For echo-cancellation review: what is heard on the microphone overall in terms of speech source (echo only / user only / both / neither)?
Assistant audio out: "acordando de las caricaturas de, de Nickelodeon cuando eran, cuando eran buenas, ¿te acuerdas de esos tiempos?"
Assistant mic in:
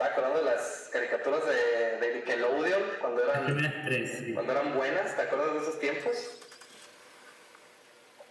both